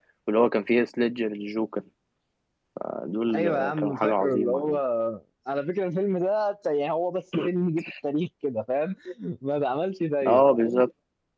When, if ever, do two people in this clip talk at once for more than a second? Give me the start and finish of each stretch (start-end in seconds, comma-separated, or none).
3.3-4.8